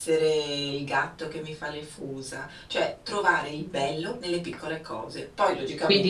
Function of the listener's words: taking over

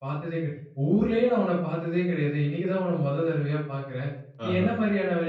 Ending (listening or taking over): listening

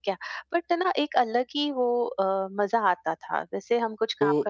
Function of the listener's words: taking over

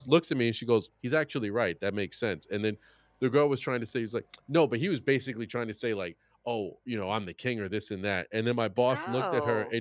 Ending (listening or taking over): listening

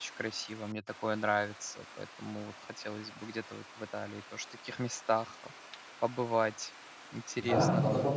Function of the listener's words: taking over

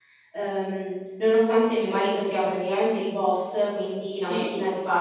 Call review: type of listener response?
listening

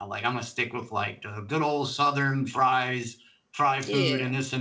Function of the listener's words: listening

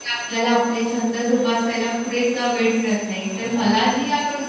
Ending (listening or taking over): listening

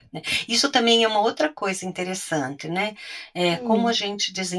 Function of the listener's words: listening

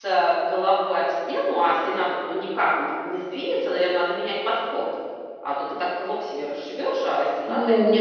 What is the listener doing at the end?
taking over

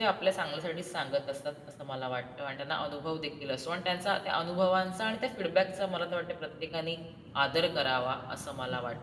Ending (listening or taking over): taking over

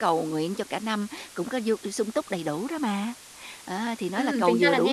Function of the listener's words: taking over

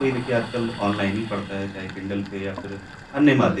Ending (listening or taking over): listening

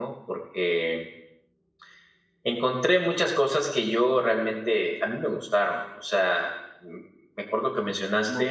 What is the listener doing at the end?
taking over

